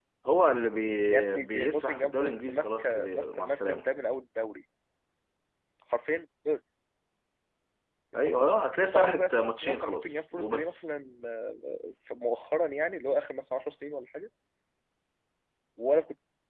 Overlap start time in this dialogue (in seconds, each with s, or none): 1.1 s